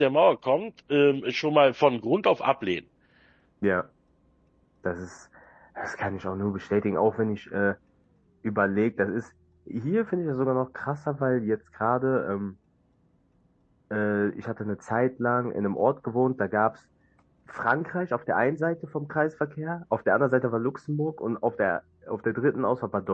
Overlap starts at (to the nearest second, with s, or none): none